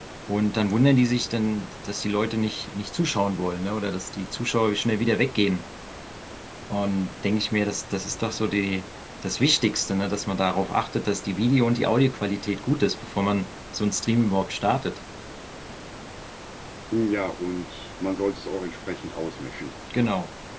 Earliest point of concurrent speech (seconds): none

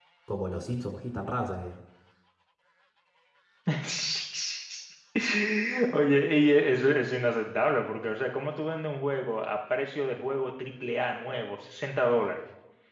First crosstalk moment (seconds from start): none

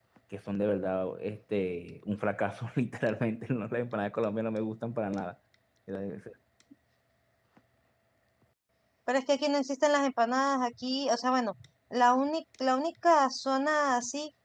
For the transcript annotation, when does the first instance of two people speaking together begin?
none

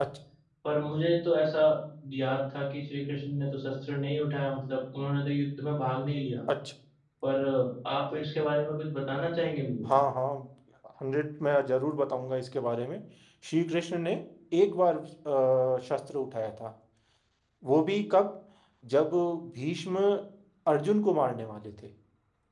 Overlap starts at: none

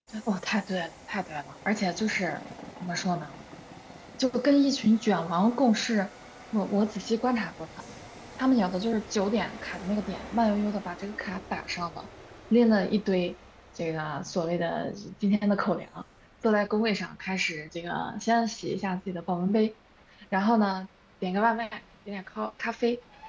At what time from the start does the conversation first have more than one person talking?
none

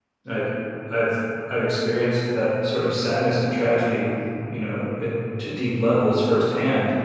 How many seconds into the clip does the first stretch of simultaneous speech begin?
none

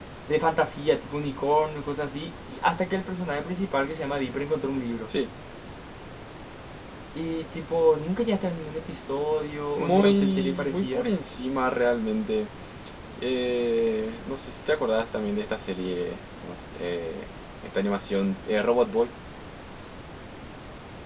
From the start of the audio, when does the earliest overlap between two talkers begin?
9.8 s

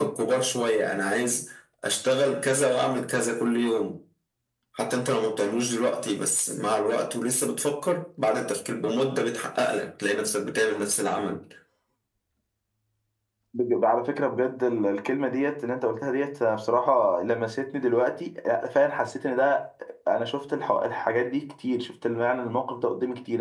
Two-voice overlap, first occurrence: none

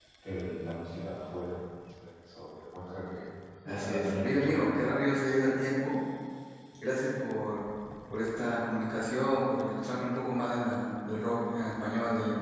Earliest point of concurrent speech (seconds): 3.7 s

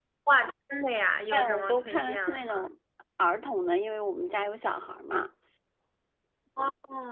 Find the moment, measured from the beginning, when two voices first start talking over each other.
1.3 s

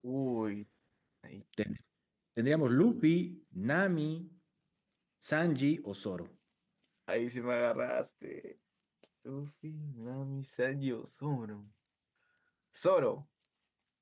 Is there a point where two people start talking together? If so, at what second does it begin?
none

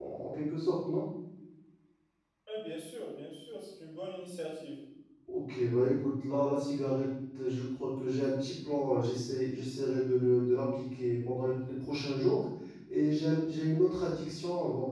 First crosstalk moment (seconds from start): none

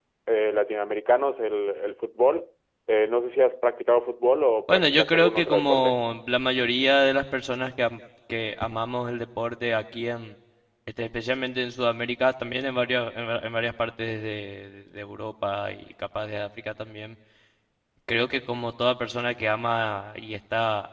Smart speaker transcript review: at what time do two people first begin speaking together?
4.7 s

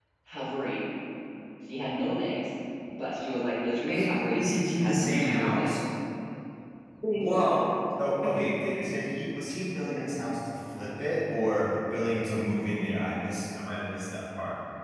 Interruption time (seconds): 3.9 s

